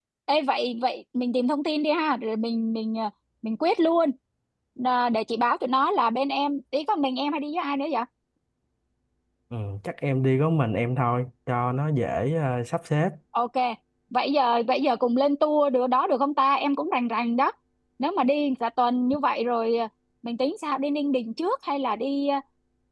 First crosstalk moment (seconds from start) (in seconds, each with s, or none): none